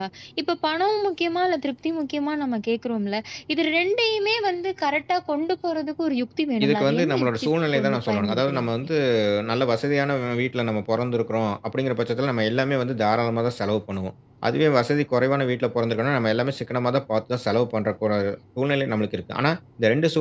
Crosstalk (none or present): present